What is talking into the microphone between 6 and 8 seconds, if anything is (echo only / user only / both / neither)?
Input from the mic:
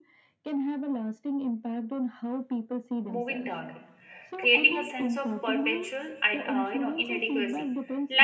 both